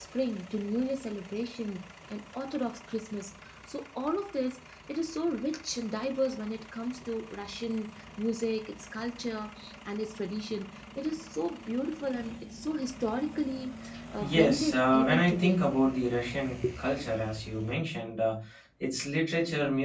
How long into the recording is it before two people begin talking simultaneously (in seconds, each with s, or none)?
14.2 s